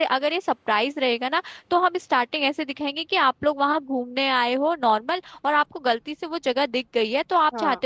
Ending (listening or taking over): listening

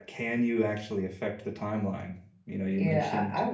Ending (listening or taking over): taking over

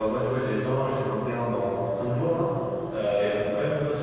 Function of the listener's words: listening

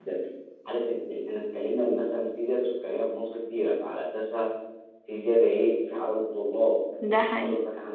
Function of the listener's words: listening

